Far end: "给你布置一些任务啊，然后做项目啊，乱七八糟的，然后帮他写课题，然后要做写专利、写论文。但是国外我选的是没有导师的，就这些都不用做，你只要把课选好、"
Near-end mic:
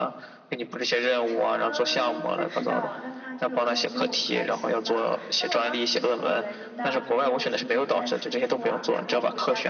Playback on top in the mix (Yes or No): Yes